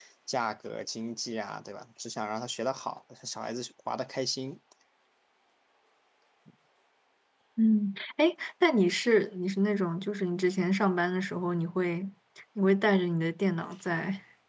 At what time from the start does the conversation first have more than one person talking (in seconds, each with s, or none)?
none